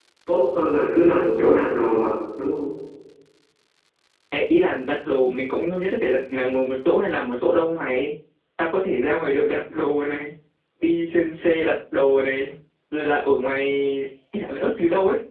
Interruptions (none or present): none